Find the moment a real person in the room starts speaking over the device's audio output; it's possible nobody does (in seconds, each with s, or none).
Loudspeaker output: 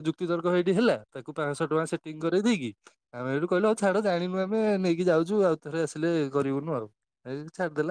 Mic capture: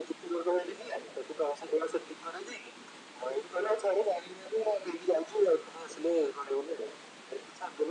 none